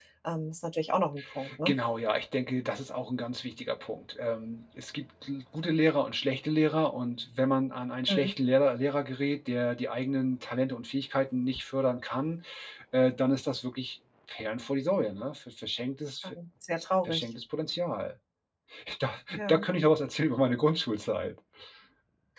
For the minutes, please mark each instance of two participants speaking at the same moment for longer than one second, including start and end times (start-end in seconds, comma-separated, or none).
none